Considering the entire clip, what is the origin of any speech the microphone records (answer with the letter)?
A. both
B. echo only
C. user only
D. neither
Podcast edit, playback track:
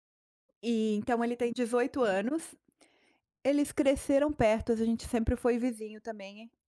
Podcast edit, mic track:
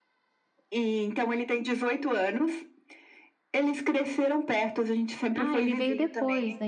A